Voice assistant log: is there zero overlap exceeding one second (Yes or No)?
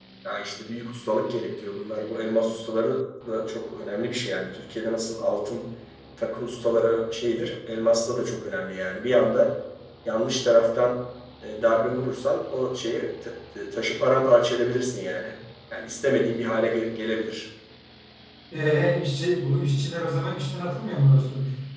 Yes